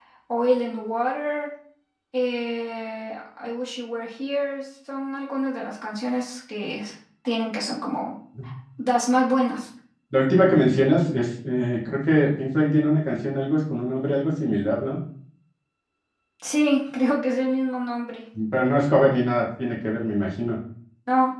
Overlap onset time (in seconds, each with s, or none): none